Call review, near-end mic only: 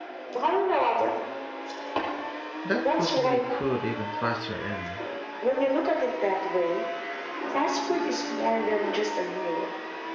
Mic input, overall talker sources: both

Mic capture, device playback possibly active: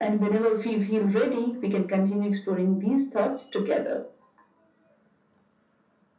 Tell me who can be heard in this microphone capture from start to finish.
echo only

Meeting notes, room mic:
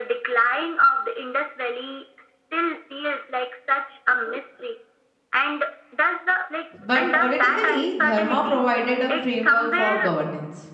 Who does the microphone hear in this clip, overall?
both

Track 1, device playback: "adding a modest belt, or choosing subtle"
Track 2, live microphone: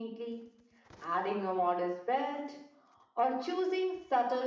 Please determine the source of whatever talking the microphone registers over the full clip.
echo only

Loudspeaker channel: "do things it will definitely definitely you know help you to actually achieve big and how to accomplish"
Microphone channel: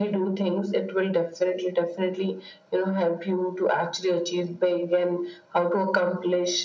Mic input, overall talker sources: echo only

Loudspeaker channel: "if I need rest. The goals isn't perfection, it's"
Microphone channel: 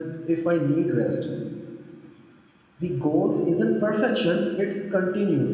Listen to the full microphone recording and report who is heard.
echo only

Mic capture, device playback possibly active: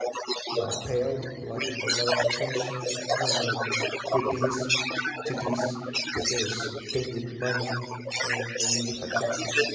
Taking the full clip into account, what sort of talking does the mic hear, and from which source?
both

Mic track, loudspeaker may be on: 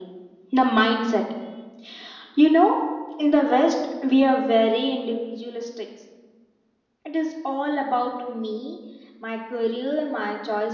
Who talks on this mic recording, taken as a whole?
echo only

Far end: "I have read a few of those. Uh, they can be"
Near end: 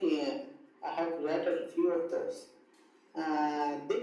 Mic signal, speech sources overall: echo only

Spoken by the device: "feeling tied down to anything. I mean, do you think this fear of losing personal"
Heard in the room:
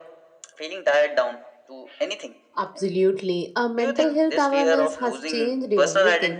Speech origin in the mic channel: both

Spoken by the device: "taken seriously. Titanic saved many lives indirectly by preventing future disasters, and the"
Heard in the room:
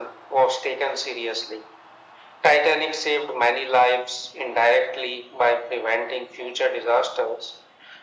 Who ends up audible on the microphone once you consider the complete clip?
echo only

